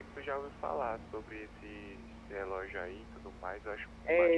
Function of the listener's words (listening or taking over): taking over